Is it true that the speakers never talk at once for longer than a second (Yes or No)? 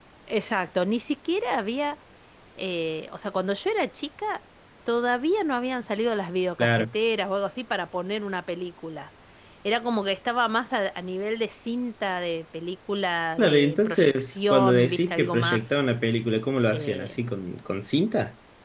No